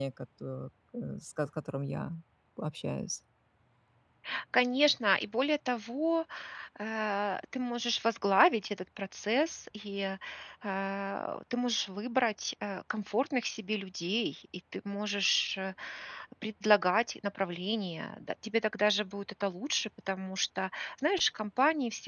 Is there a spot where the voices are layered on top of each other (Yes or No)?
No